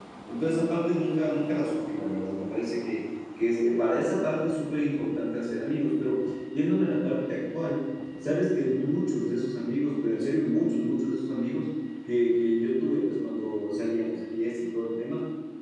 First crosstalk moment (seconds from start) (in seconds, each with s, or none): none